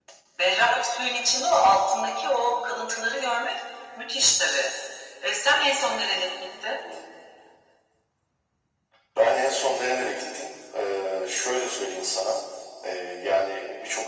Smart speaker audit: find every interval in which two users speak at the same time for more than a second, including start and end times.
none

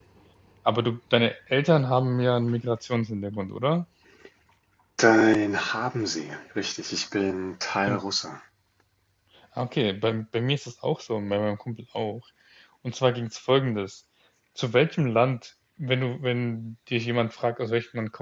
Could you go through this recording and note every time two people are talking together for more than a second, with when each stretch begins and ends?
none

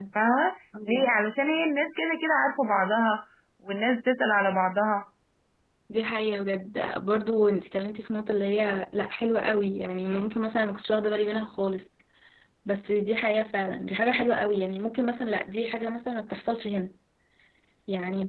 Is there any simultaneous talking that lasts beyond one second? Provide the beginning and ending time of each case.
none

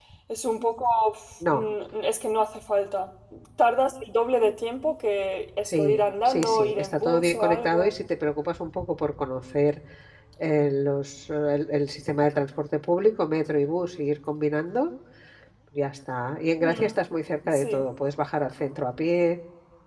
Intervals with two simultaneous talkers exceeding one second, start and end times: 5.7-7.9

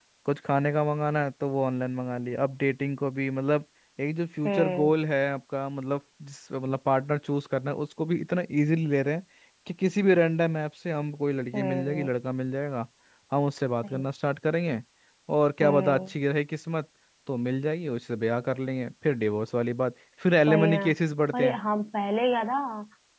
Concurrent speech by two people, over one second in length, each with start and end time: none

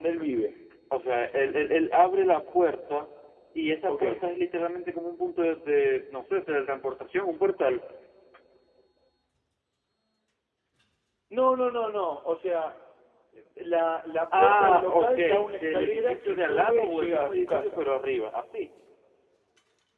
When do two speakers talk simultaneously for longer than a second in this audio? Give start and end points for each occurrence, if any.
14.4-17.8

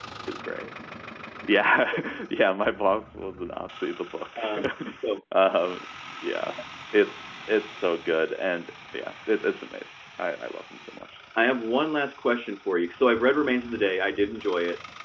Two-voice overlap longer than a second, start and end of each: none

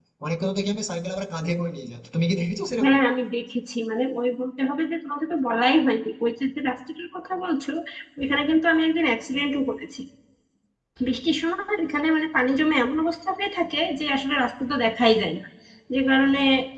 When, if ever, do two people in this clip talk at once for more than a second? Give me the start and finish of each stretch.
none

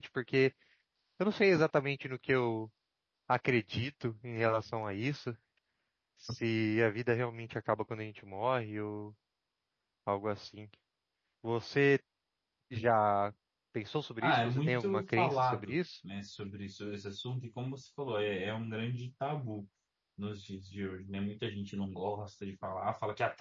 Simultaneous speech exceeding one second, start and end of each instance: 14.2-15.8

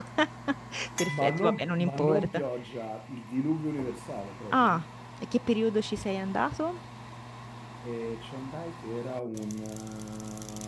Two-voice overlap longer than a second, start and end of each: 1.1-2.3

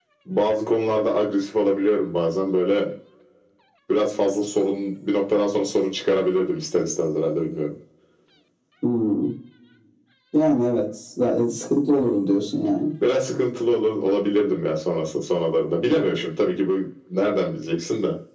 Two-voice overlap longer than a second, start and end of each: none

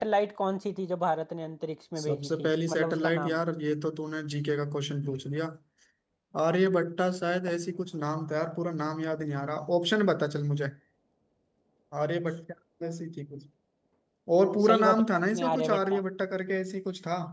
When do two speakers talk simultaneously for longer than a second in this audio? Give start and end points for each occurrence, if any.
2.0-3.4, 14.7-16.0

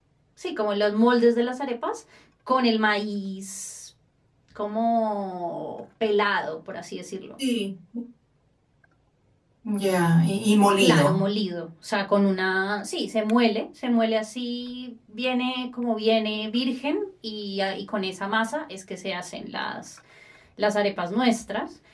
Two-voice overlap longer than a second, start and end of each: none

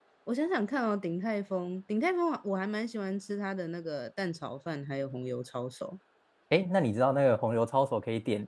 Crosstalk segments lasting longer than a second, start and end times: none

